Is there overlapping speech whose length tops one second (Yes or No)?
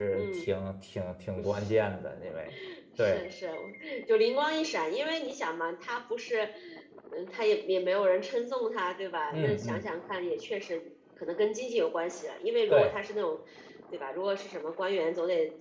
No